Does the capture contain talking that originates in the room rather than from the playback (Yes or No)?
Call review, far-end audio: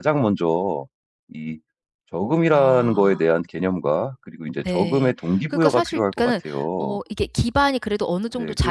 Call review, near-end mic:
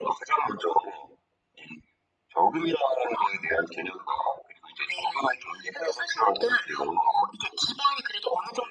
No